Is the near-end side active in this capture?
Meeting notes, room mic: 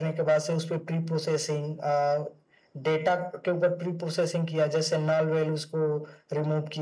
No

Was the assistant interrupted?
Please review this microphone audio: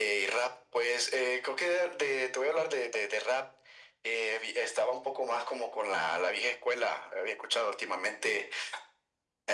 No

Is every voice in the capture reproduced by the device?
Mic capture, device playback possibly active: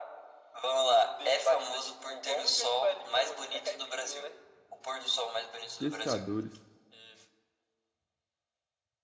No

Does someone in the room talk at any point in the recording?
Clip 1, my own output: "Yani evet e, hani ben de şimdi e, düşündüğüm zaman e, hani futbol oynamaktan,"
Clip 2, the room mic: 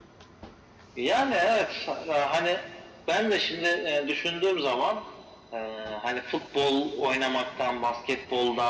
No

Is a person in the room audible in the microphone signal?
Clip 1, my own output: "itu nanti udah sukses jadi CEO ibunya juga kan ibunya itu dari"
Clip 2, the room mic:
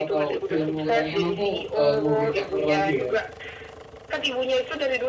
Yes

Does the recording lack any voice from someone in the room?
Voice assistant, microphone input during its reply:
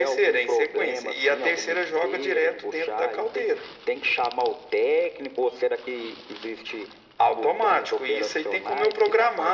Yes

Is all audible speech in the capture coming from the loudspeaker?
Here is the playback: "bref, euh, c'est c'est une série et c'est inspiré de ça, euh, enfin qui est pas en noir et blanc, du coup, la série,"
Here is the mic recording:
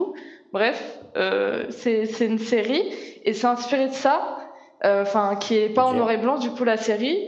No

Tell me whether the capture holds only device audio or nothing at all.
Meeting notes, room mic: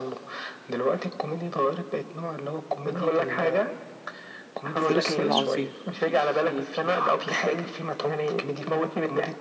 No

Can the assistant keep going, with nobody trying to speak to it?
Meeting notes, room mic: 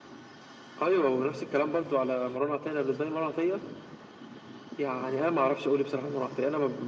Yes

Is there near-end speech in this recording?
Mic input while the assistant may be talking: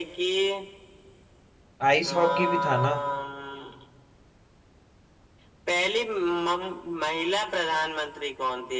Yes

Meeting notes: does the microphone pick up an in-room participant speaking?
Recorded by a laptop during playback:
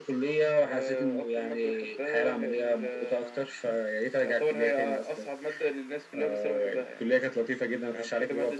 No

